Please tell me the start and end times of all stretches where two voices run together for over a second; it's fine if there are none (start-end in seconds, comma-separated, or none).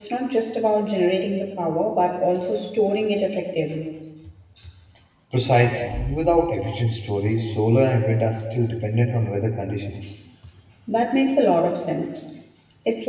none